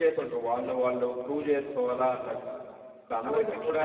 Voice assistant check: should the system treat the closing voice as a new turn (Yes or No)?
Yes